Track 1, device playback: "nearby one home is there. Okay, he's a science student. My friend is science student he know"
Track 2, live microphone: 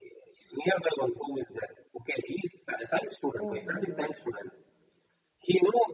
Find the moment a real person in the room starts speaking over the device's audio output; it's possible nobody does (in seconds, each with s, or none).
3.4 s